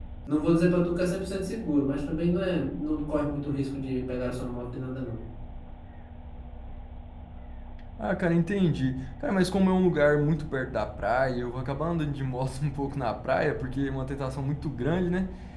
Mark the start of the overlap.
none

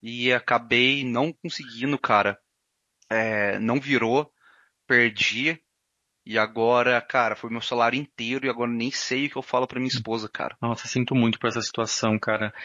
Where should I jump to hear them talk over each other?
none

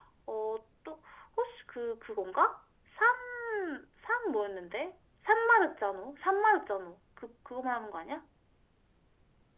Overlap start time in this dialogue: none

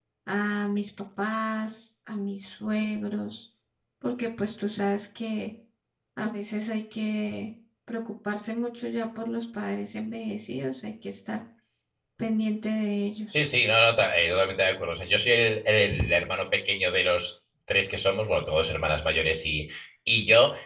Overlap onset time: none

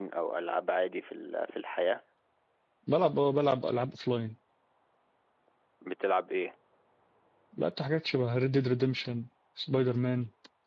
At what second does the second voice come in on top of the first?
none

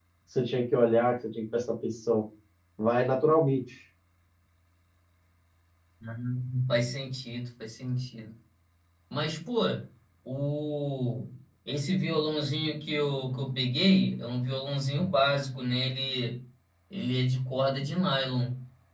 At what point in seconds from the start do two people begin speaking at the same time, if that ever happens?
none

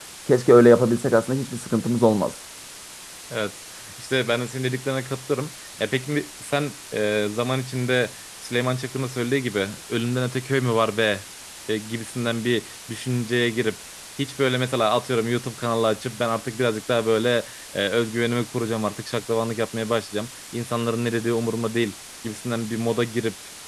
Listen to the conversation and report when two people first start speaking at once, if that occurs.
none

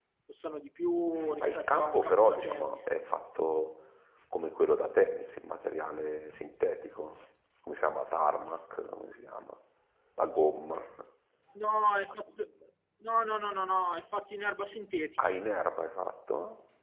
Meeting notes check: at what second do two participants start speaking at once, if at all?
1.2 s

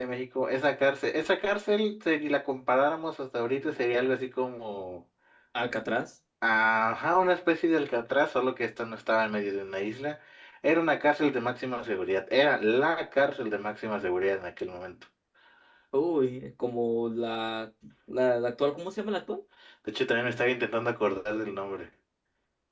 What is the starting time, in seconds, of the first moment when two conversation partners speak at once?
none

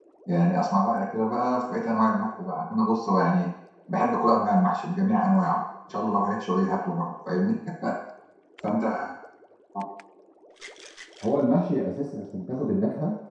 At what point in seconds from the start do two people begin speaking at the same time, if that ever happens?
none

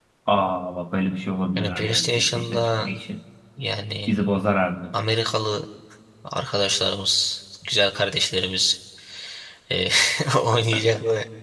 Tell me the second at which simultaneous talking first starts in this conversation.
1.6 s

